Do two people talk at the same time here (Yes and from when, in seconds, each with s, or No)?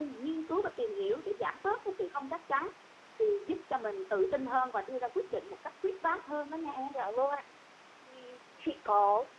No